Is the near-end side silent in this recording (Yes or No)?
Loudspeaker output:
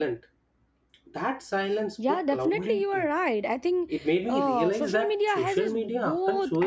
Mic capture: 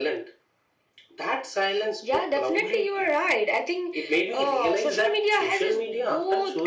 Yes